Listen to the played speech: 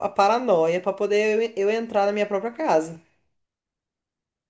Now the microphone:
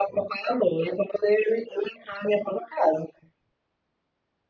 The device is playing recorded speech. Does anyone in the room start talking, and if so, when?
none

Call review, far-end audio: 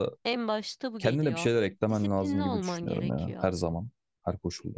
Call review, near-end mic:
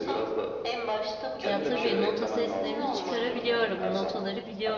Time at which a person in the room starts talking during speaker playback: 1 s

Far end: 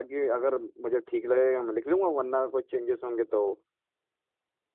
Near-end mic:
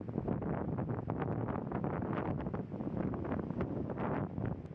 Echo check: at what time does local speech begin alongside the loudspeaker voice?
none

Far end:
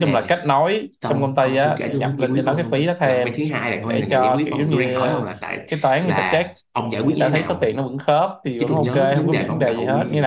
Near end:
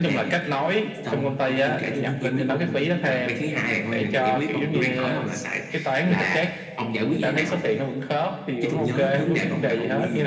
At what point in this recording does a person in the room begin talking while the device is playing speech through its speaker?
none

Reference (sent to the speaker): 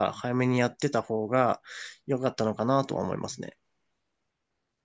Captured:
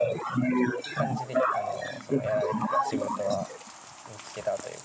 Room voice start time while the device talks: 1 s

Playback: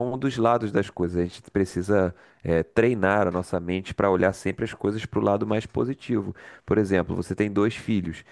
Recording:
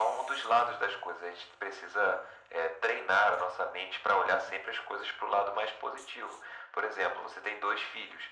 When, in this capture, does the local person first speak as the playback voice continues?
none

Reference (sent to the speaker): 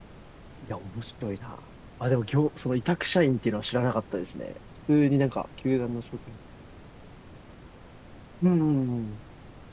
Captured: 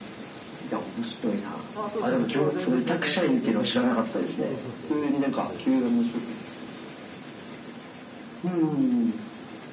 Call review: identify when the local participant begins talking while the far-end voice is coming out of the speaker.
2 s

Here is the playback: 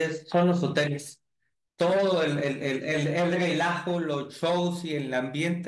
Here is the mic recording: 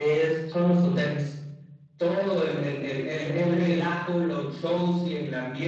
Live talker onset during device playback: none

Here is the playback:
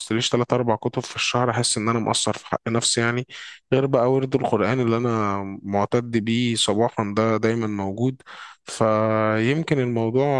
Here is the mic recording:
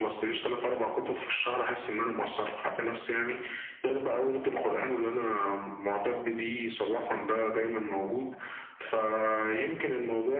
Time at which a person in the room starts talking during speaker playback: none

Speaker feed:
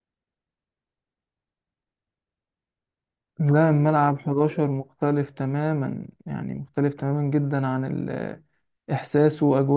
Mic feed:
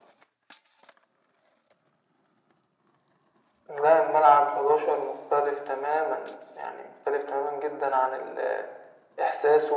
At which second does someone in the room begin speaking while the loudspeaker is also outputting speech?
none

